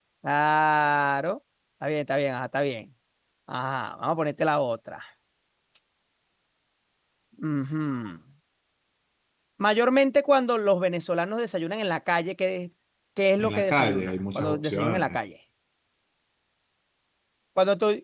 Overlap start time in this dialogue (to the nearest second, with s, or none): 13 s